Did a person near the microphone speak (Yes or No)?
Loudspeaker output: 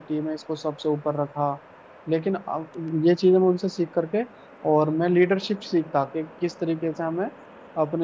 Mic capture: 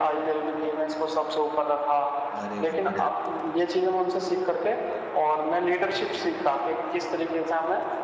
Yes